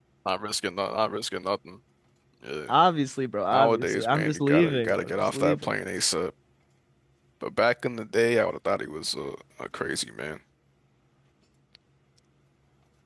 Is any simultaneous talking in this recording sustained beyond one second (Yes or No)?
Yes